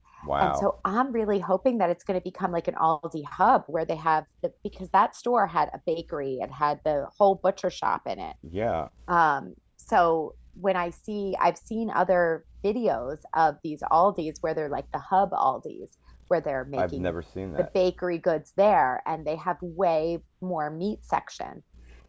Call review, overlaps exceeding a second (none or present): none